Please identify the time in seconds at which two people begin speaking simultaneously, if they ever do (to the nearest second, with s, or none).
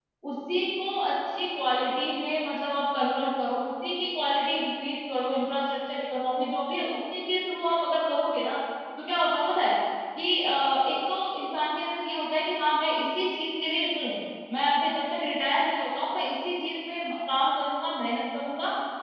none